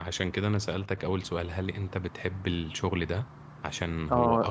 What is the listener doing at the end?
taking over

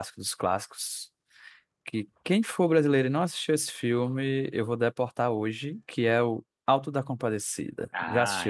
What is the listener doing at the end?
taking over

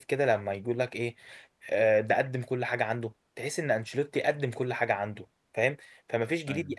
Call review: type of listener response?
listening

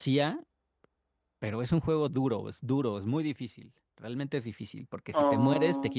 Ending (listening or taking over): listening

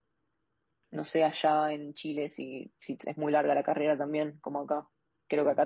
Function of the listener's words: listening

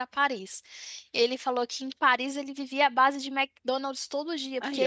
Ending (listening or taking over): listening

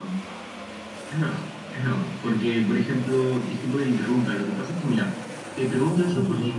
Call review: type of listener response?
listening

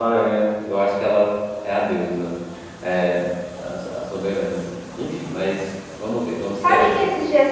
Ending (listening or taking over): taking over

